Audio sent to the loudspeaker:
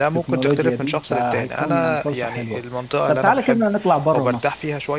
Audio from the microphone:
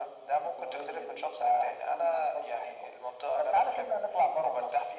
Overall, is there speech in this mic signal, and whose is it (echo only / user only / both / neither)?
echo only